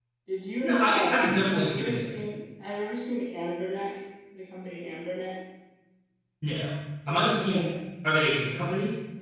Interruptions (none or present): present